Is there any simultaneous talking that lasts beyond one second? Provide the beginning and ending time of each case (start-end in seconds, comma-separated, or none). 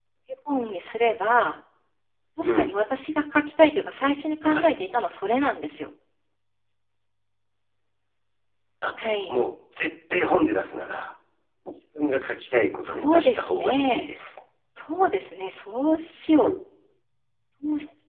12.8-14.1